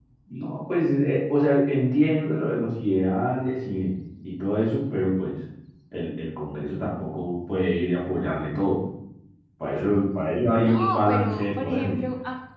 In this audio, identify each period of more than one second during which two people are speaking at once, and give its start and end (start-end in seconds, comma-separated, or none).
10.5-12.0